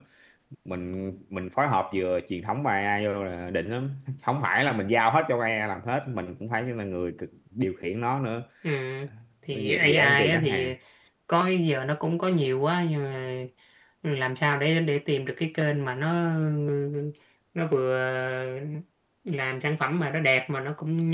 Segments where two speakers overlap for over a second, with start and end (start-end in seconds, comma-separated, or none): 9.5-10.7